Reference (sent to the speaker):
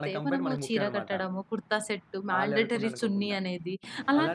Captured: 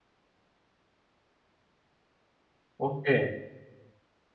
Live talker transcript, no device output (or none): ఓకే.